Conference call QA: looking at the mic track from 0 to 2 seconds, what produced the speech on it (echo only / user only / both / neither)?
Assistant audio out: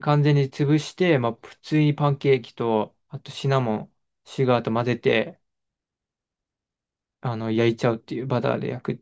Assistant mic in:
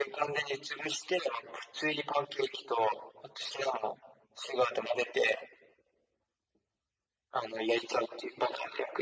echo only